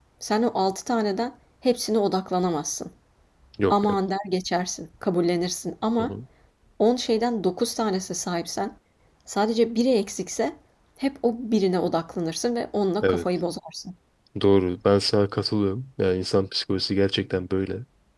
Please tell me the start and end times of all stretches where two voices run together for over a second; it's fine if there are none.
none

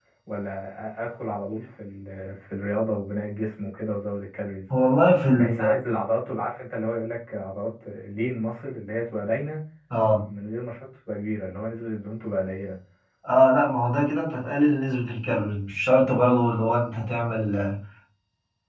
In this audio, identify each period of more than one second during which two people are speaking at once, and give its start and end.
none

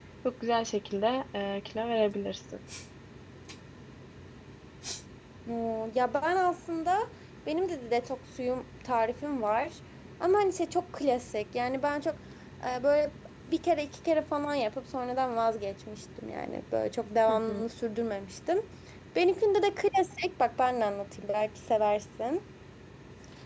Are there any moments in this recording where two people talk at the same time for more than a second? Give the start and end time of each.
none

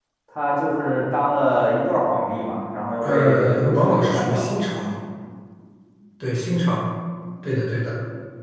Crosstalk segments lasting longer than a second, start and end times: 3.0-4.5

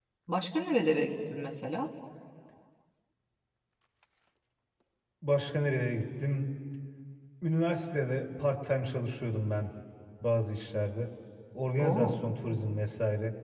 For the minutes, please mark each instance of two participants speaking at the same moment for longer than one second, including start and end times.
none

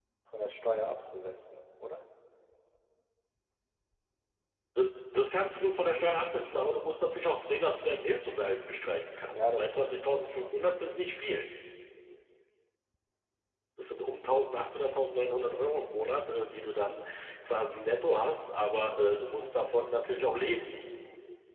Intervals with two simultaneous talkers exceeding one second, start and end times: 9.3-10.6

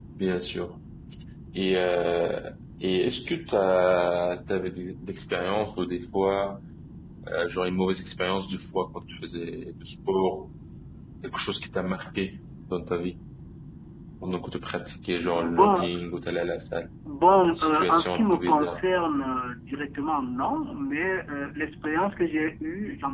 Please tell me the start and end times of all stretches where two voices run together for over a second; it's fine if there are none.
17.5-18.8

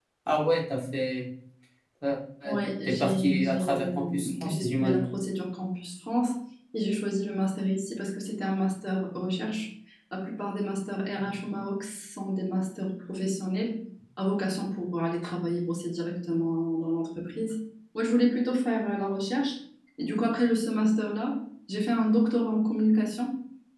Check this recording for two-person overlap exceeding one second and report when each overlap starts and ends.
2.9-5.1

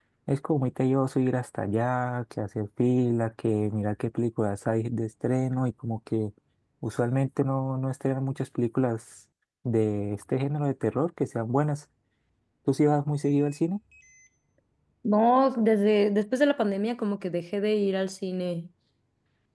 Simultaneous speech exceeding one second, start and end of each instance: none

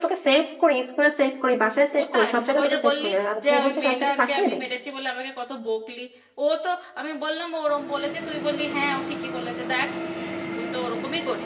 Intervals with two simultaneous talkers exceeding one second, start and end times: 2.0-4.6

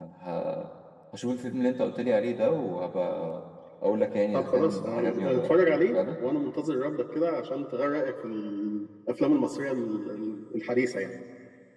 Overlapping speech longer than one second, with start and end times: 4.3-5.5

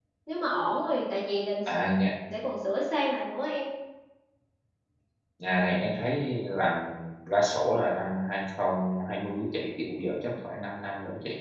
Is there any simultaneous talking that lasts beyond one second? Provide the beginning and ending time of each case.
none

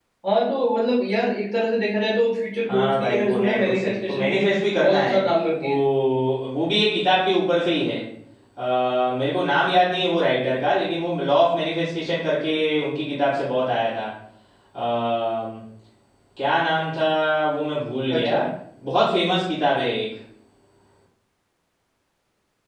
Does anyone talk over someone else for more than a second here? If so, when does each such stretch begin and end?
2.7-4.4

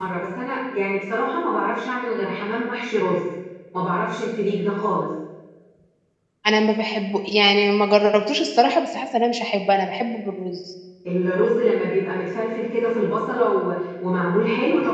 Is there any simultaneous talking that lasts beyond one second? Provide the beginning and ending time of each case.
none

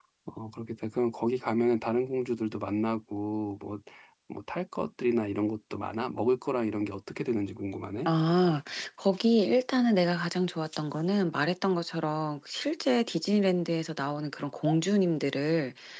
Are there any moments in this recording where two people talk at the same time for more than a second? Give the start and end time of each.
none

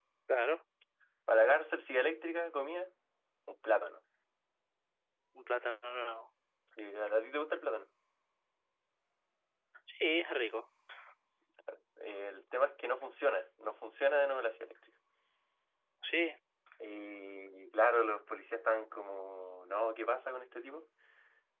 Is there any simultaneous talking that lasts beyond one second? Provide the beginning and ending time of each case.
none

